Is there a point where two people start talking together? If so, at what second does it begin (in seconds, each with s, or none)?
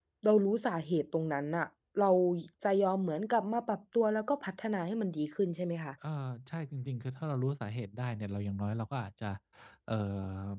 none